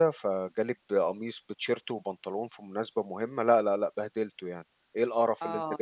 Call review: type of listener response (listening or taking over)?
taking over